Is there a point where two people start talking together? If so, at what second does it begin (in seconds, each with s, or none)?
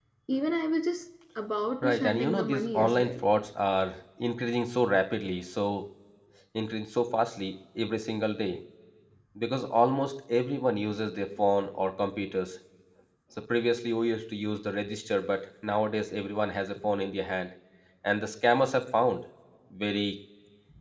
1.8 s